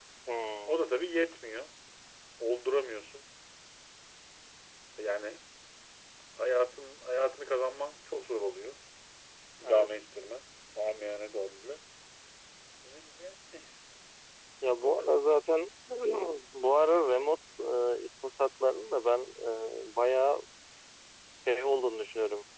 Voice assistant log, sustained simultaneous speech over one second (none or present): none